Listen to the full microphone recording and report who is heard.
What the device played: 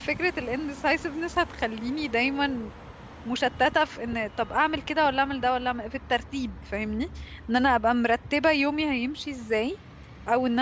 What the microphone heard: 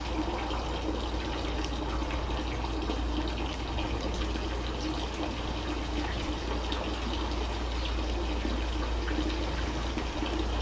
neither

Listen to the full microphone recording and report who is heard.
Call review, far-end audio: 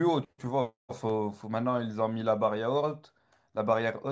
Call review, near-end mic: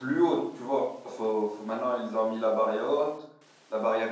echo only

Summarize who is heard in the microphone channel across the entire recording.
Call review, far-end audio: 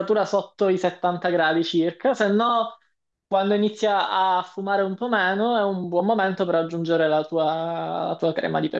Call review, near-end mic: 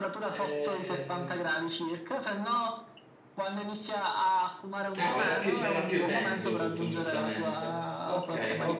both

